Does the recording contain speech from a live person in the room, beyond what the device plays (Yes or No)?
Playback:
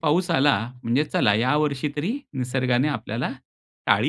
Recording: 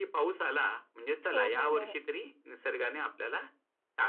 Yes